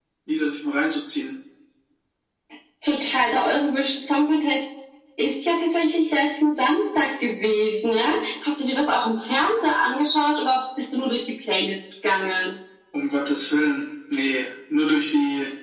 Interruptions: none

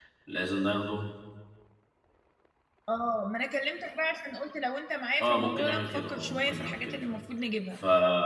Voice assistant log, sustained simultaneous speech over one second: present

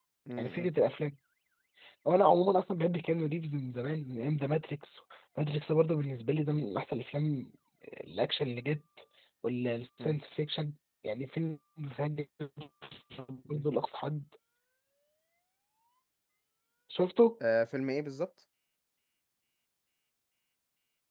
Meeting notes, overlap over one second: none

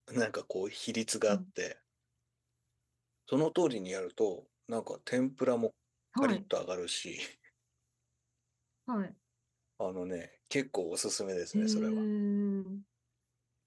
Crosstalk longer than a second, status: none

